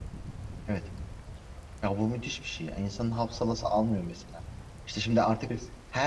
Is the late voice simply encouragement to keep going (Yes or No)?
Yes